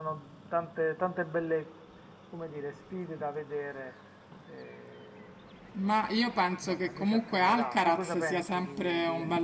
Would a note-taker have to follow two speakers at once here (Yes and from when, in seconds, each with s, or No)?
Yes, from 6.7 s